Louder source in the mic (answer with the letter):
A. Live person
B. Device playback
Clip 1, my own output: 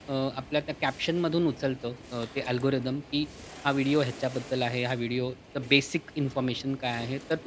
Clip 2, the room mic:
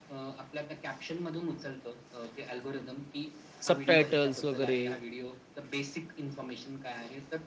A